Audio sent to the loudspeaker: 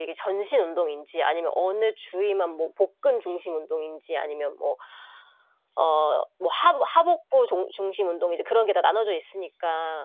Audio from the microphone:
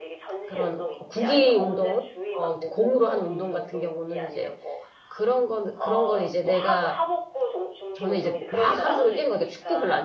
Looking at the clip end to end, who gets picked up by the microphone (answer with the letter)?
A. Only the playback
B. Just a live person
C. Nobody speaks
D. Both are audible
D